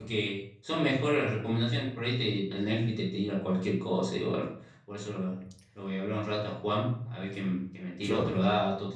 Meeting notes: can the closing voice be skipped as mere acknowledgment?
Yes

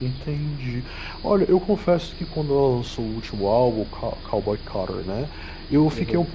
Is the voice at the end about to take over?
No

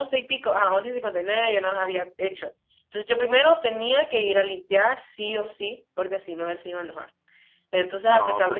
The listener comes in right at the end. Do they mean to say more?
No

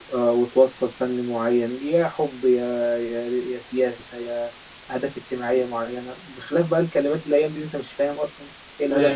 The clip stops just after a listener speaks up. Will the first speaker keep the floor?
No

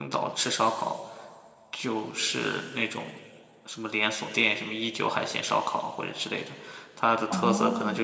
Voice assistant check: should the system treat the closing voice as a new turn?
Yes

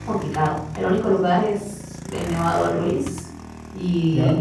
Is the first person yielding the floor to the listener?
No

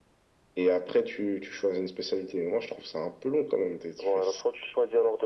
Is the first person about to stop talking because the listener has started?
Yes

